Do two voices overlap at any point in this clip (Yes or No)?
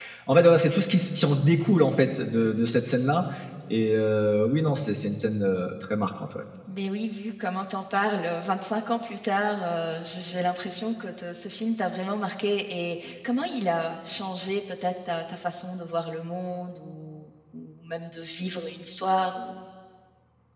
No